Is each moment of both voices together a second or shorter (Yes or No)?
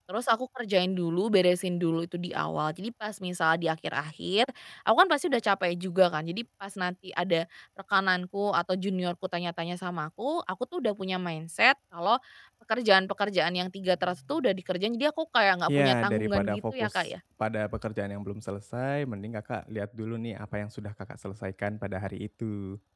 No